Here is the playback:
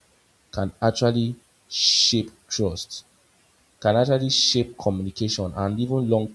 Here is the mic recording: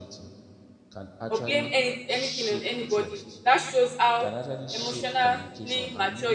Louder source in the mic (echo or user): user